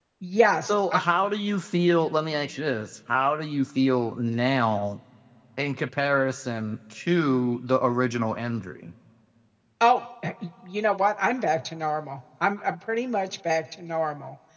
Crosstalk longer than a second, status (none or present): none